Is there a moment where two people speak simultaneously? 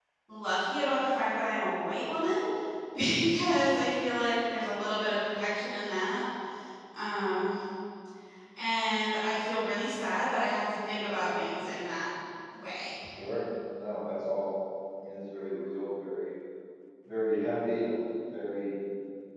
No

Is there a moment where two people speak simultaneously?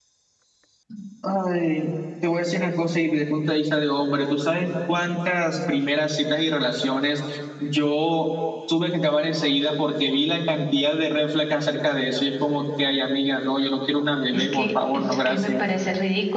Yes, from 14.3 s

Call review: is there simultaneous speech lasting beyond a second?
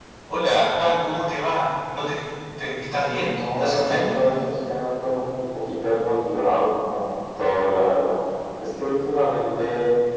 Yes, from 2.9 s

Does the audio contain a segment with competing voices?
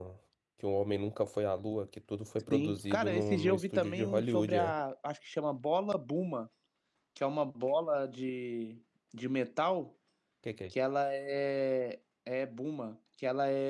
Yes, from 2.5 s

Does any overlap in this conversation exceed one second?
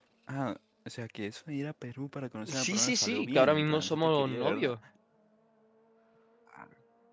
Yes, from 2.5 s

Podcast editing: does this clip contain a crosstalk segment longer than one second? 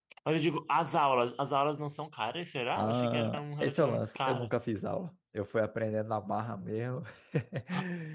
Yes, from 2.8 s

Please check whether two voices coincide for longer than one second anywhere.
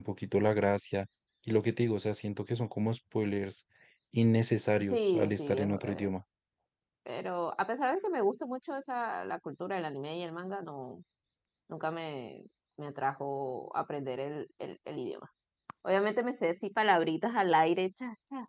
Yes, from 4.8 s

